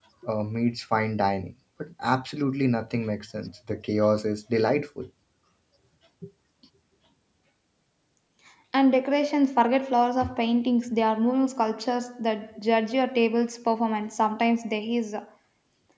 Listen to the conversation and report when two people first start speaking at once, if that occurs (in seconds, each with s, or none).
none